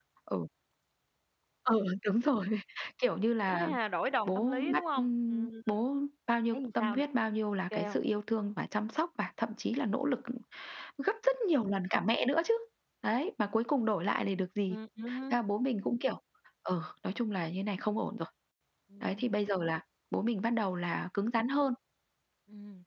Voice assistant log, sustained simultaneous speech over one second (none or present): present